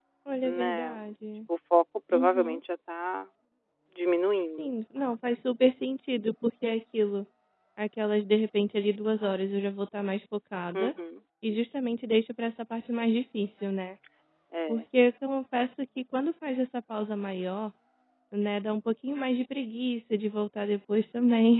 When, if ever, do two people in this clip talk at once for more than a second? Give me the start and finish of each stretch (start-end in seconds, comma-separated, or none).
none